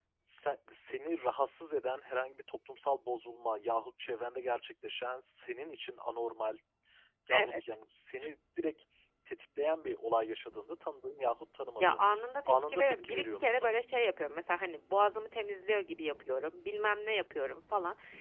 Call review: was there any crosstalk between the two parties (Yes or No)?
Yes